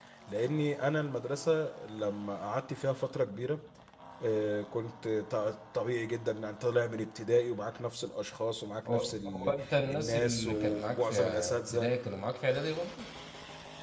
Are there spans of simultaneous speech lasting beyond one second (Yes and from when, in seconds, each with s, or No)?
Yes, from 8.8 s